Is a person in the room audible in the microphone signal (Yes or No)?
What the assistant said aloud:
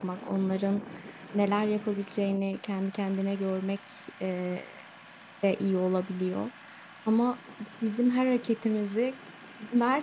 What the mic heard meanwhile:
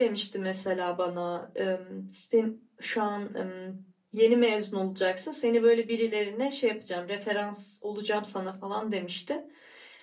Yes